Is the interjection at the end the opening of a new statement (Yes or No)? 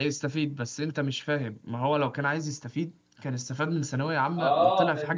Yes